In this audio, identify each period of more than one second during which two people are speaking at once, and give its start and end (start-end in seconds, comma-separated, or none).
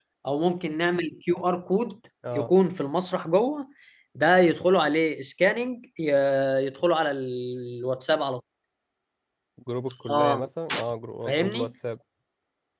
none